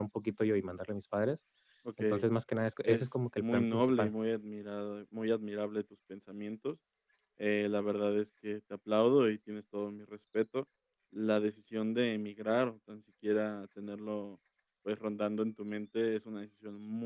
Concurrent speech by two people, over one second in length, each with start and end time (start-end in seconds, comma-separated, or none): 2.8-4.1